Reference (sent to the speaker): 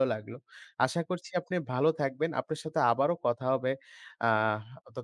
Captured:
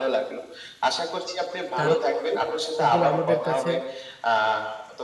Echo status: present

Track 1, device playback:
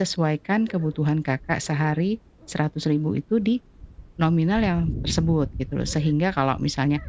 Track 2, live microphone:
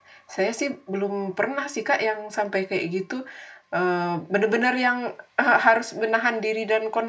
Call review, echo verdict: none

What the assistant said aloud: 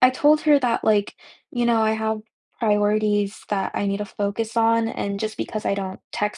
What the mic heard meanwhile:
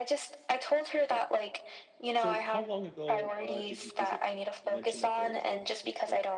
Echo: present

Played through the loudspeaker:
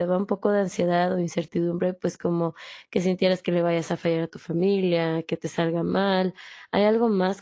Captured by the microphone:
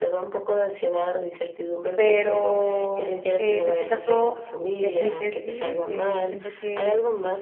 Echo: present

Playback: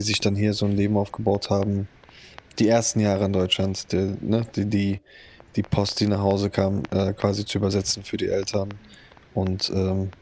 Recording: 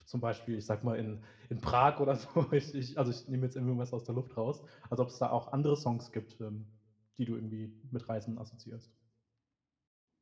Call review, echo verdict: none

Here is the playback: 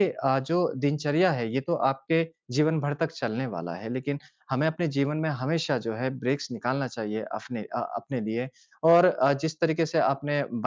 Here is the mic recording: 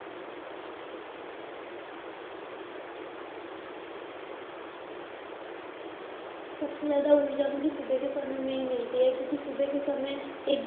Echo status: none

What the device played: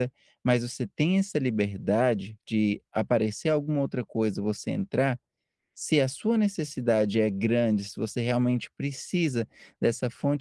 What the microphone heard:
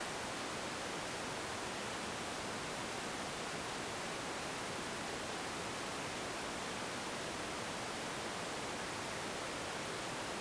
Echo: none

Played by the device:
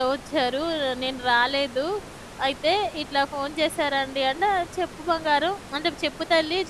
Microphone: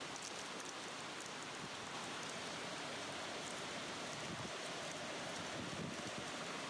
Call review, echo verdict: none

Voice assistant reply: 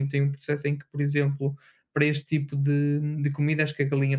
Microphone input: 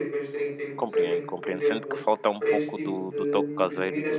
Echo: present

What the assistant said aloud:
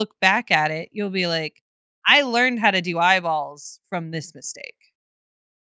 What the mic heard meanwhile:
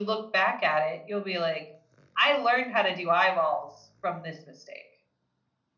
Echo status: present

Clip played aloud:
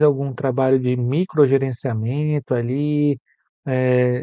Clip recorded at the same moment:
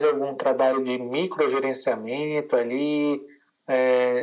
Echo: present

